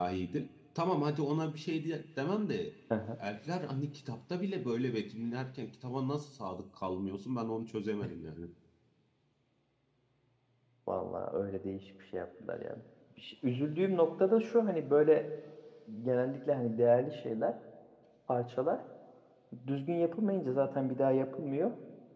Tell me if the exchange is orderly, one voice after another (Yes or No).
Yes